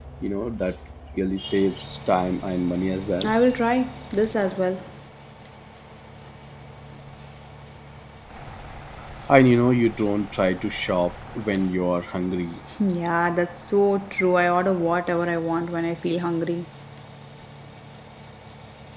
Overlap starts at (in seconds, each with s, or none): none